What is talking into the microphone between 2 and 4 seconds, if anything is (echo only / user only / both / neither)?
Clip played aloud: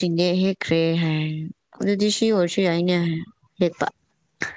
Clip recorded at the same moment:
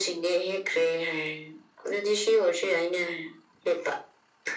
echo only